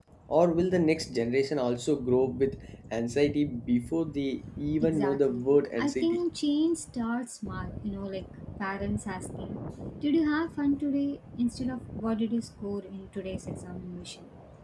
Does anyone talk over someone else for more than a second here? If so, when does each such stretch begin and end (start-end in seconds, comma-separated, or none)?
4.8-6.2